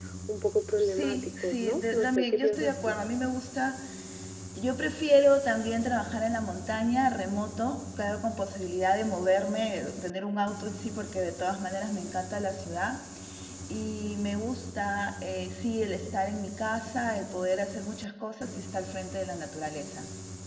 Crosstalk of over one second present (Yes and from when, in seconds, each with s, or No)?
Yes, from 0.8 s